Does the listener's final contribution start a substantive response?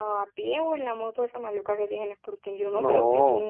No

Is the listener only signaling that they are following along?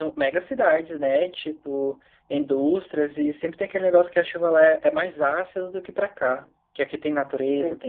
Yes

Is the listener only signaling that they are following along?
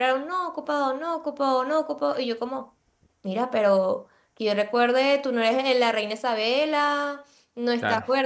Yes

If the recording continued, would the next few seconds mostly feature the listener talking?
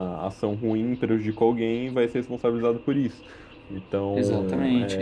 Yes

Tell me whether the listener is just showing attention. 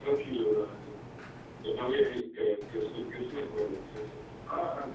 No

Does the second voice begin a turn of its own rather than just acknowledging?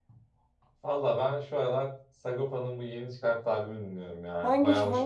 Yes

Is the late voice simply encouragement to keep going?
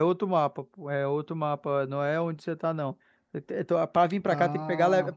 Yes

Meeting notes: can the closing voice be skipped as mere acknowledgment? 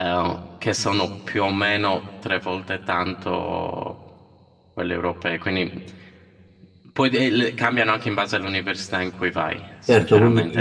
No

